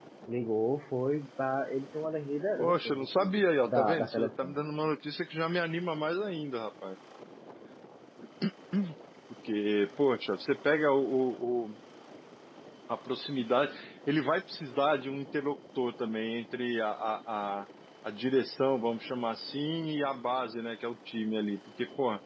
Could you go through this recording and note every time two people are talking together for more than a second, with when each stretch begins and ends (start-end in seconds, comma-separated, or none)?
2.6-4.5